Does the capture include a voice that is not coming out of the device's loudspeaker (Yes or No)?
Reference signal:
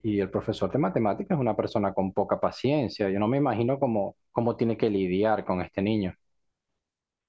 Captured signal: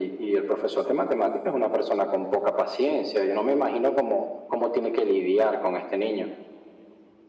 No